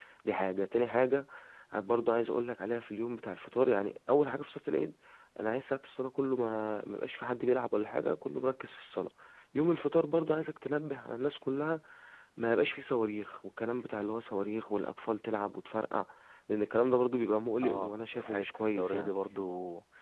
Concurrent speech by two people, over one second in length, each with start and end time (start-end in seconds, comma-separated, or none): 17.6-19.1